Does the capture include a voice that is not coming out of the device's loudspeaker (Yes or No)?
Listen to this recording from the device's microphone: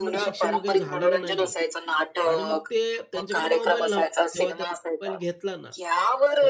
Yes